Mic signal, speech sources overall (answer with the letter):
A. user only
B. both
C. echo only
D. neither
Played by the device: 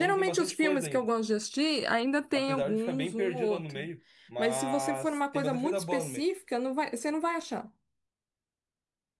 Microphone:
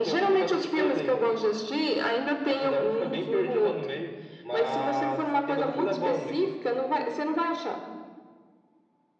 C